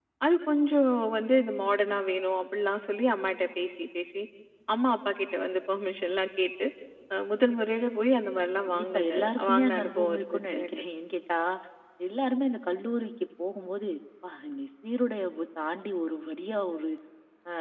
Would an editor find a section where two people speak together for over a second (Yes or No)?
Yes